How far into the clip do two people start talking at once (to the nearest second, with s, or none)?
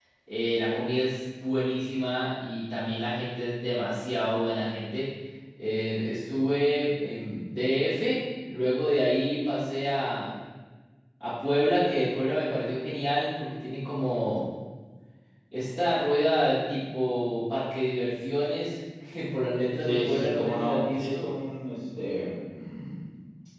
20 s